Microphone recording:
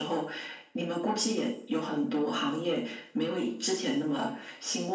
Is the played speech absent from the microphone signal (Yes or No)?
No